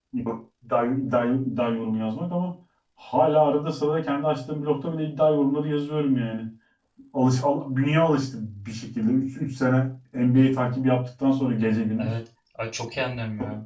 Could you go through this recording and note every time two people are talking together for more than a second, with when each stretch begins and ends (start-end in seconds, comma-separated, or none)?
none